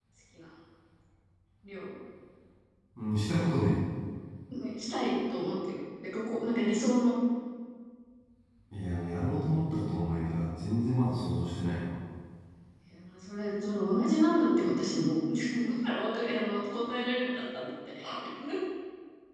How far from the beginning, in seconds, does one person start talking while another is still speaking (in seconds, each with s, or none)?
none